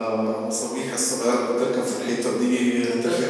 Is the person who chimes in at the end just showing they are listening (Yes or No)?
Yes